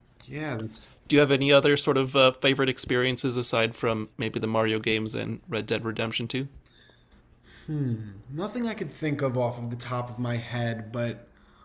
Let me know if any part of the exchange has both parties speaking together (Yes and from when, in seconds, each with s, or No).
No